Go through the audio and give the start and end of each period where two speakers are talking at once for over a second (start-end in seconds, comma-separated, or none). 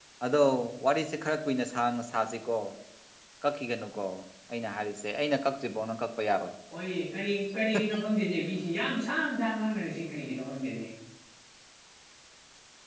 none